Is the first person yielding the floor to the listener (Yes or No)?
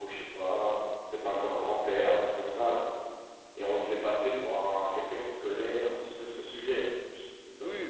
Yes